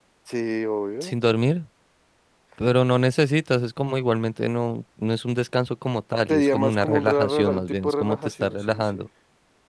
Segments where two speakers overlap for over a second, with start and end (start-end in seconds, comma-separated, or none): 6.3-9.0